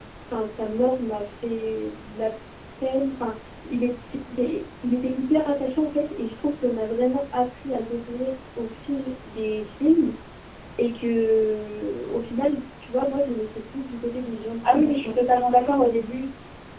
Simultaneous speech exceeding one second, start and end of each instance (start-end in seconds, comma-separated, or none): none